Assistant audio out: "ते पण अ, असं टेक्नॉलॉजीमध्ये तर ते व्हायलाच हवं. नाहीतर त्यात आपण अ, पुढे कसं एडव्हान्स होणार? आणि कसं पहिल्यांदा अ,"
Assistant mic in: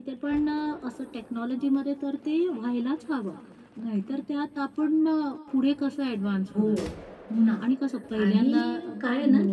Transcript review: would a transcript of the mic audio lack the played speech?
No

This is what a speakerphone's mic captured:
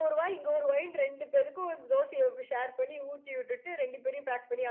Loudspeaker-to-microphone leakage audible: Yes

